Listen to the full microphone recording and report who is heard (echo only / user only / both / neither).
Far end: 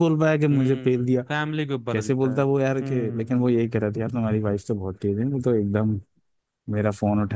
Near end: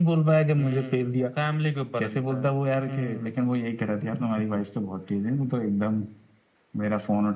echo only